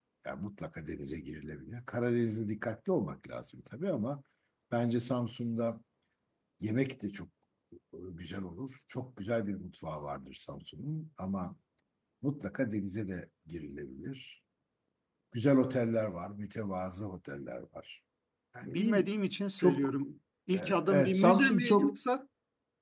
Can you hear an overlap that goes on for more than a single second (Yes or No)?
Yes